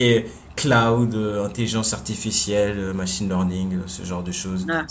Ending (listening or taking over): taking over